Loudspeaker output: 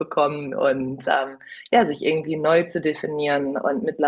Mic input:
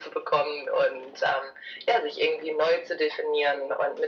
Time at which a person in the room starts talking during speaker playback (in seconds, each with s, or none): none